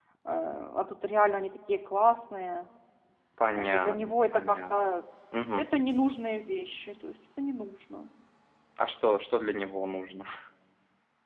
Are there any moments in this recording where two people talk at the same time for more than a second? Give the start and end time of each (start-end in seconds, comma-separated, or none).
3.5-5.0